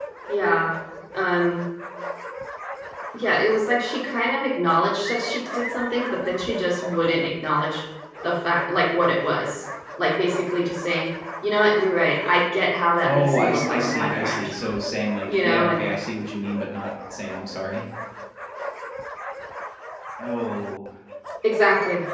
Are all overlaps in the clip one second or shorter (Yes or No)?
No